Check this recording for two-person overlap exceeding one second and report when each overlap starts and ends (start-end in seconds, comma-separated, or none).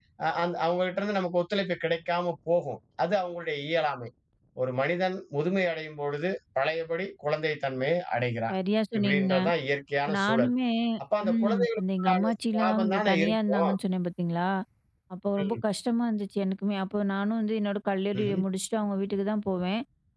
11.3-13.7